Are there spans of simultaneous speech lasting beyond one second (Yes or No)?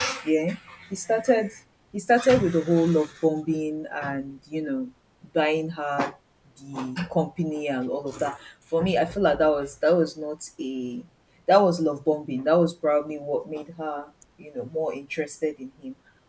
No